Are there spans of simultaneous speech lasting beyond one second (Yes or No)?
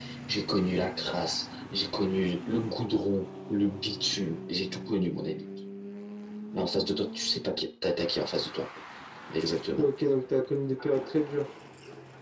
No